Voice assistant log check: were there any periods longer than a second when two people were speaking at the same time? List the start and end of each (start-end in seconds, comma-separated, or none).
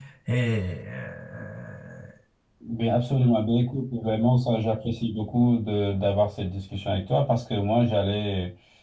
none